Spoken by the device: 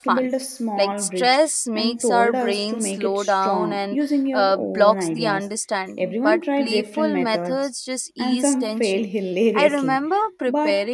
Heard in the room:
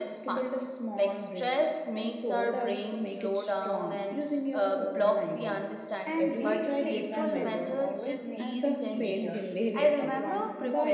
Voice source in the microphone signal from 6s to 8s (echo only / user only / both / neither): both